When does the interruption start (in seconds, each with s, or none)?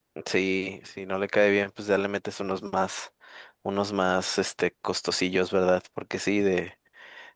none